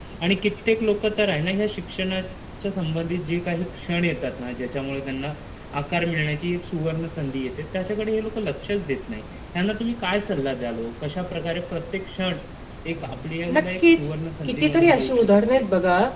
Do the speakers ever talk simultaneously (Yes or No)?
Yes